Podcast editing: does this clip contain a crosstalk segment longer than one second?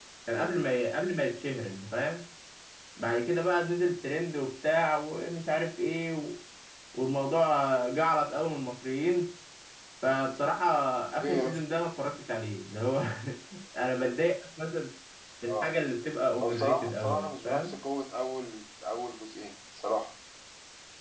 Yes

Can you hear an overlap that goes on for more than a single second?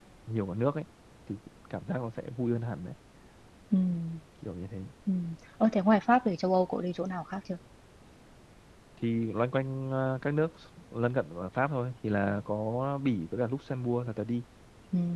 No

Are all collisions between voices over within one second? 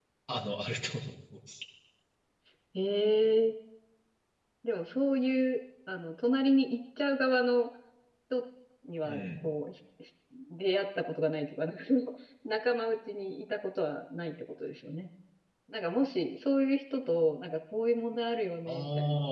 Yes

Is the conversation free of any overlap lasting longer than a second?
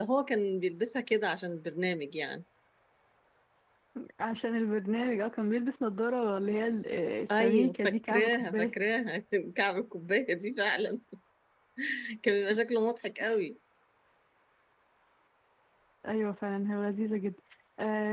No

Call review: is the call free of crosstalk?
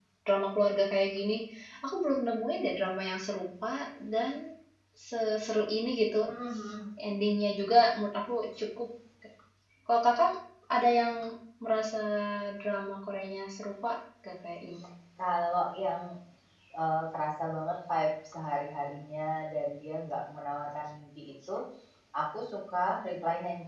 Yes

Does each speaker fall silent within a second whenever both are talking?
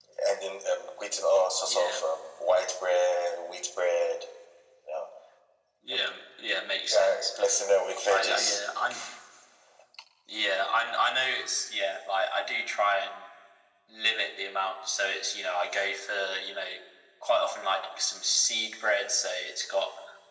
Yes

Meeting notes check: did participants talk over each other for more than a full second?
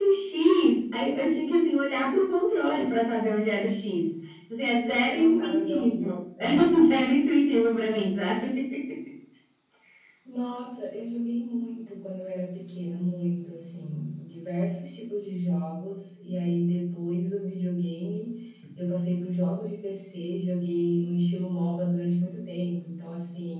Yes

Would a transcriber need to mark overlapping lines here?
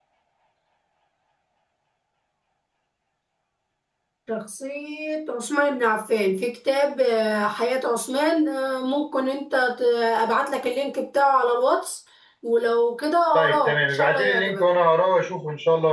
Yes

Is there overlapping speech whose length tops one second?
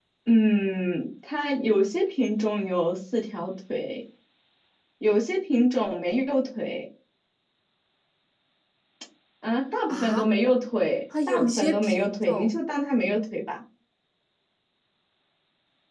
Yes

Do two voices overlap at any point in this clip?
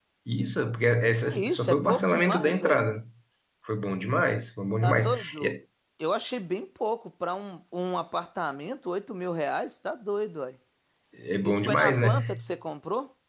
Yes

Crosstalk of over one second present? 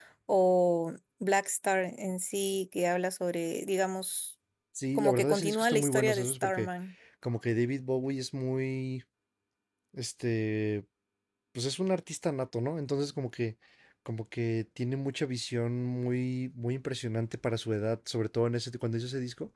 Yes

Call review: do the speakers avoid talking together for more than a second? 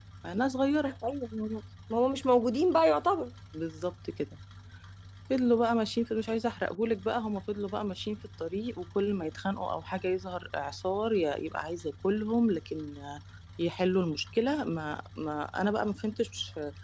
Yes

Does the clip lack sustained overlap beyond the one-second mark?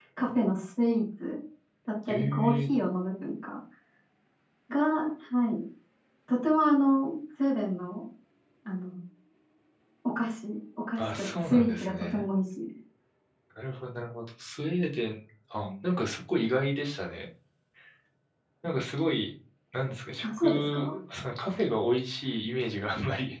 No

